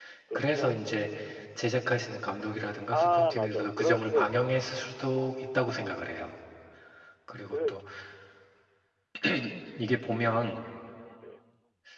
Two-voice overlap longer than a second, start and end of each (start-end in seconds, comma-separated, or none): 2.9-4.6